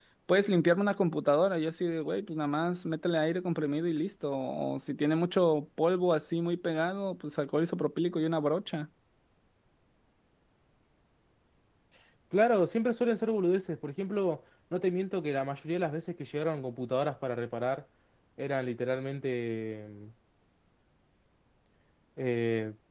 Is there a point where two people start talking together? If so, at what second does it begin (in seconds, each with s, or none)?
none